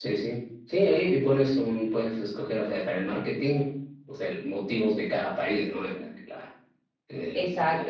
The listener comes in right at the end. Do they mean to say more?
Yes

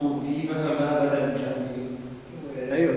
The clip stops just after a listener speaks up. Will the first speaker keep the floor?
No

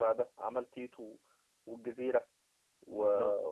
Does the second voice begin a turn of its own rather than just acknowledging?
No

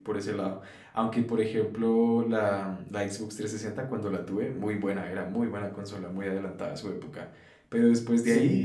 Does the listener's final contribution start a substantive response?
No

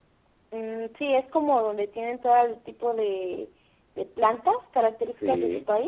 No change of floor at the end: No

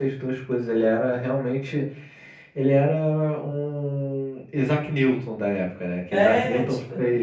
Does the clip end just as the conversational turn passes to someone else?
No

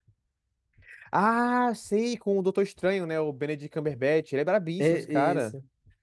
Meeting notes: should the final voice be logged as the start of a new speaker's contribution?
Yes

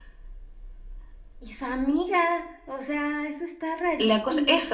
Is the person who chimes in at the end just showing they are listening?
No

